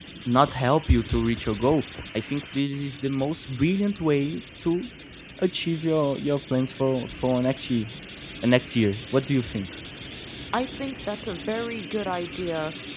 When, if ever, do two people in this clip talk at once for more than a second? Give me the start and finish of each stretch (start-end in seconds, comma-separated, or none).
none